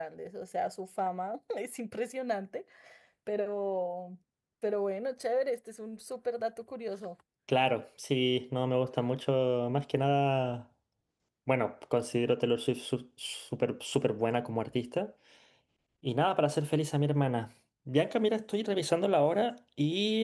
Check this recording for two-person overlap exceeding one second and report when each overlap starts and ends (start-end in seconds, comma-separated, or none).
none